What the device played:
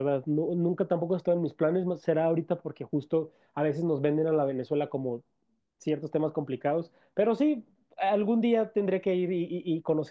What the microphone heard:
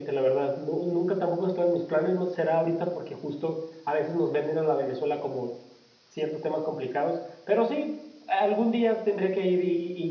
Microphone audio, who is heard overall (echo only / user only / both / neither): echo only